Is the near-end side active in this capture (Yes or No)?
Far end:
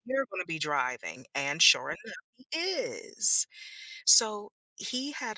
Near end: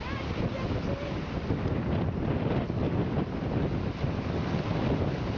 No